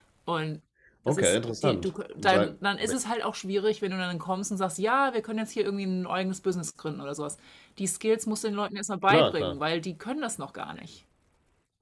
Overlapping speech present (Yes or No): Yes